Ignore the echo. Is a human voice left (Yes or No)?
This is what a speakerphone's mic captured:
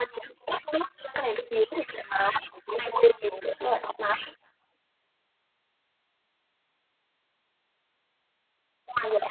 No